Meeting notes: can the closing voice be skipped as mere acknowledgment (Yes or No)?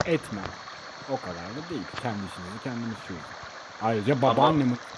Yes